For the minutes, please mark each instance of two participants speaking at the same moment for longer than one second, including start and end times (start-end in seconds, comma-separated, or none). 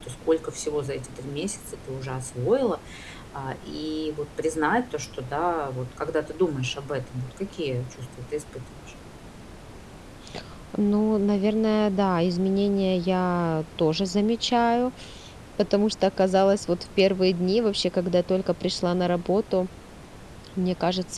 none